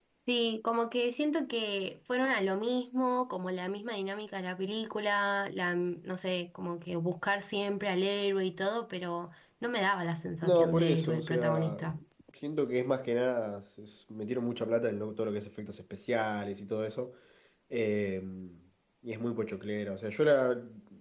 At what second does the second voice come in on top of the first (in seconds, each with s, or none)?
10.4 s